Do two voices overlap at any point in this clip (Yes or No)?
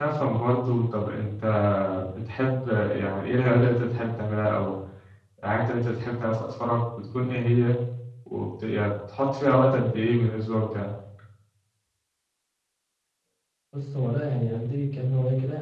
No